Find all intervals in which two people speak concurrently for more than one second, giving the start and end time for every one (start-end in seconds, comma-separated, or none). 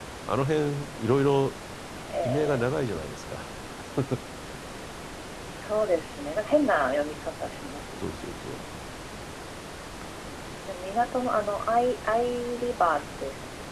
none